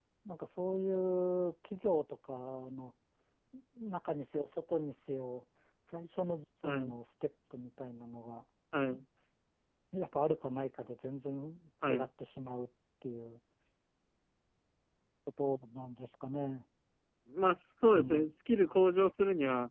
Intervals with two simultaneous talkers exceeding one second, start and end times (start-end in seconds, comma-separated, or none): none